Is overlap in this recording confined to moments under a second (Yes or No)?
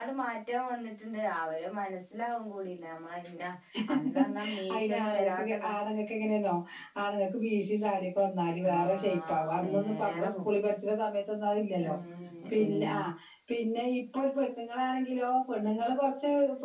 No